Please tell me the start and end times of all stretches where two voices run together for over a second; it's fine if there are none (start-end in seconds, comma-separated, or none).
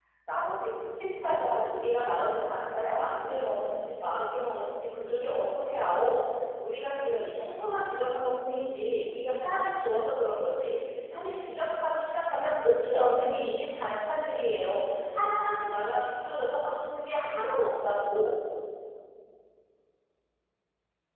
1.2-3.3